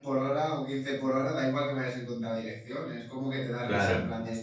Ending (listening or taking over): listening